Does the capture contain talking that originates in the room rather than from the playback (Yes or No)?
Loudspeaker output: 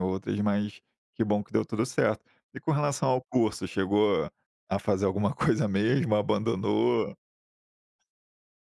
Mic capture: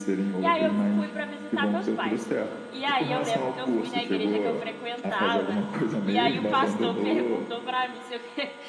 Yes